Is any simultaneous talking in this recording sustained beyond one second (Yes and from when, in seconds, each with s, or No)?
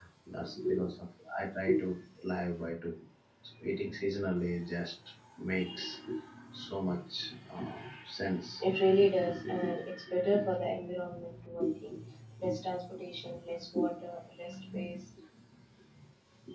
No